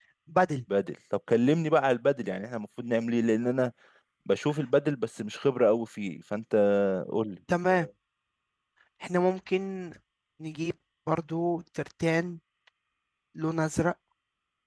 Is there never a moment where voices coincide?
Yes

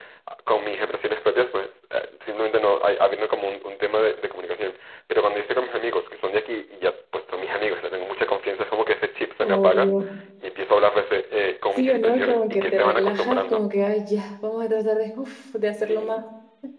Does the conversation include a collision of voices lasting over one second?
Yes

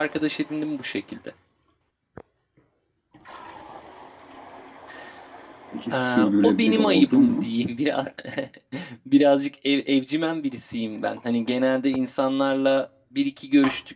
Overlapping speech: Yes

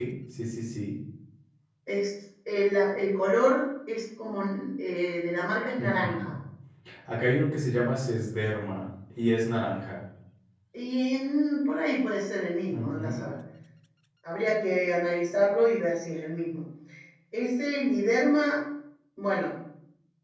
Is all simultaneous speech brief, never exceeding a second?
Yes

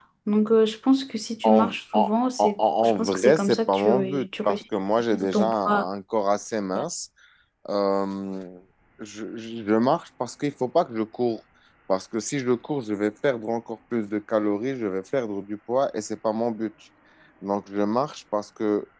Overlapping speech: Yes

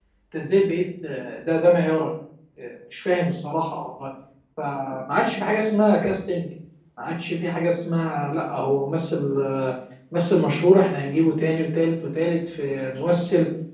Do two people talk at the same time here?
No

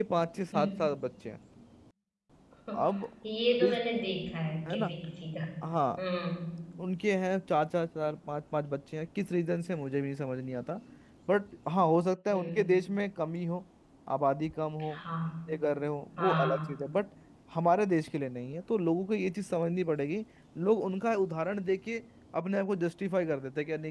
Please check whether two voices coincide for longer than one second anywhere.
No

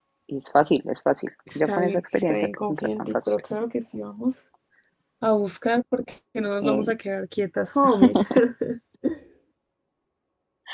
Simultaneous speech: Yes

